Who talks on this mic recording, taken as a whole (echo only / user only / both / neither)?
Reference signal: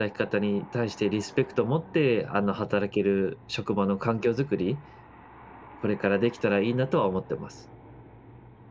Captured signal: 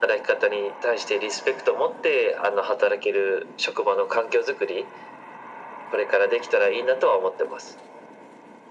echo only